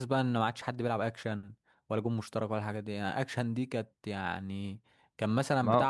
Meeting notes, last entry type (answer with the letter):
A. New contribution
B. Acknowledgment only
B